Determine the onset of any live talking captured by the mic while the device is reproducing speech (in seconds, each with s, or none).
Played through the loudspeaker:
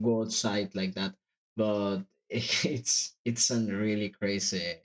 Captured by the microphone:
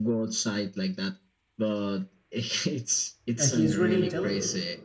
3.3 s